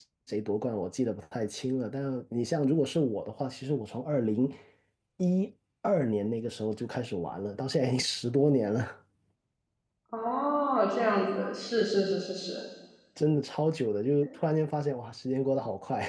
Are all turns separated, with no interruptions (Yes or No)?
Yes